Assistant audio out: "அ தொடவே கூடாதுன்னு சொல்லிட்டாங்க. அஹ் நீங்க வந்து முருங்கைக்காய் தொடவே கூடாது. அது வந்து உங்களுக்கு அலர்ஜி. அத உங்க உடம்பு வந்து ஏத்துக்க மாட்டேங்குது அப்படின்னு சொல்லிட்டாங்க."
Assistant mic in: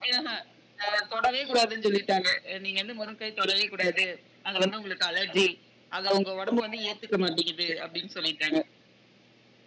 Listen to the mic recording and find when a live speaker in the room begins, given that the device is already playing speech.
none

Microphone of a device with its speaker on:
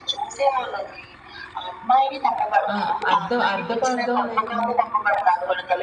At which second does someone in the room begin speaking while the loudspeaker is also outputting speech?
3 s

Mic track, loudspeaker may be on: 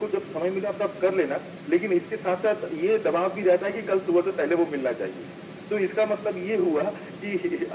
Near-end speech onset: none

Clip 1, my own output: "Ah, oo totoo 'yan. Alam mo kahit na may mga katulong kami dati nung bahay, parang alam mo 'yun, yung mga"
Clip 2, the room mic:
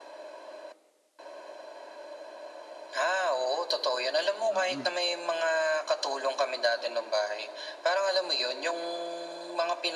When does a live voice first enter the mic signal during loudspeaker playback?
4 s

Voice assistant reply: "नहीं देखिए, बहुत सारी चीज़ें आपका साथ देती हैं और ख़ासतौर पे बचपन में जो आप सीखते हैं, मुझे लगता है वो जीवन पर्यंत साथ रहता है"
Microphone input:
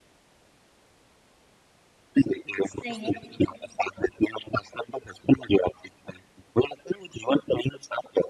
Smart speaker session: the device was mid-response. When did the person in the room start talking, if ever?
3 s

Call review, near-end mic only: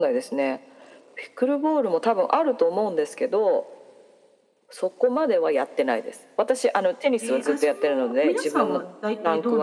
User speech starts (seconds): 7 s

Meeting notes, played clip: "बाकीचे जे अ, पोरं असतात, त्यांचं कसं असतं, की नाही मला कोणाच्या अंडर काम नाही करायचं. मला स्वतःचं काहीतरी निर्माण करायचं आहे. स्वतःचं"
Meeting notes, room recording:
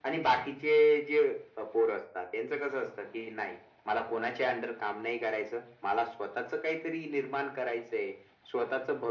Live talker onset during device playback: none

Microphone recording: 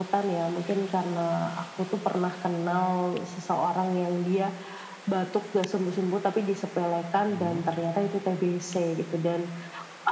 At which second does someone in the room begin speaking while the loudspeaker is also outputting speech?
7 s

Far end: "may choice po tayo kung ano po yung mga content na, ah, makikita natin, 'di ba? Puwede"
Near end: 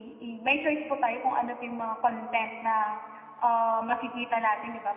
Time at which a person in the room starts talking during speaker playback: none

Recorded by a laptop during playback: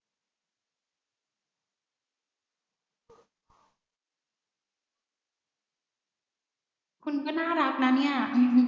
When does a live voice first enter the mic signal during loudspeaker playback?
7 s

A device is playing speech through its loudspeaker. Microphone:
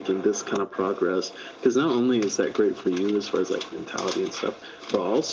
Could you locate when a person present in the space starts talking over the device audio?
none

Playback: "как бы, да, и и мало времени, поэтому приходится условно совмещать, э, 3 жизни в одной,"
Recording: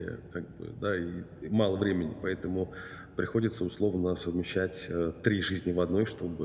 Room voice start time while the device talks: none

